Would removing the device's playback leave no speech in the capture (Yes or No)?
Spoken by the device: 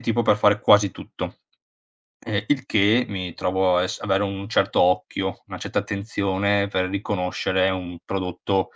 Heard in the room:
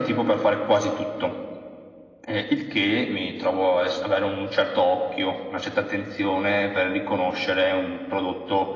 Yes